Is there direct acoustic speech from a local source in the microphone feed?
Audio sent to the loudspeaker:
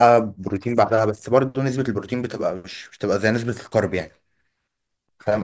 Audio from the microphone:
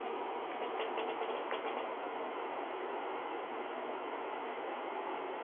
No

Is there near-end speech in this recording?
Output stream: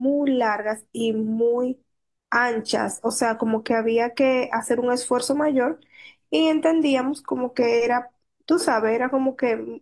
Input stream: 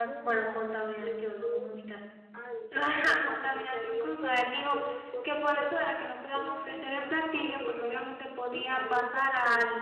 Yes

